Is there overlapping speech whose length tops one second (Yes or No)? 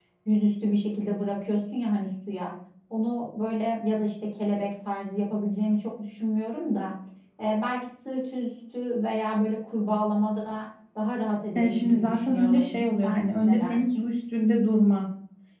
Yes